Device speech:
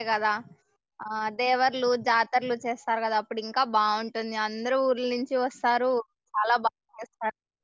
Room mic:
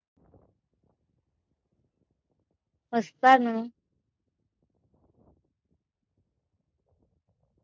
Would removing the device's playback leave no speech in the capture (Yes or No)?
No